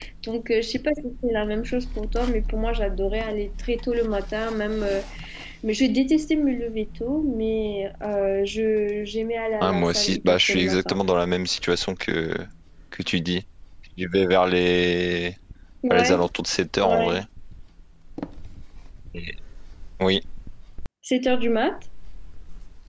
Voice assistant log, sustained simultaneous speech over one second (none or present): present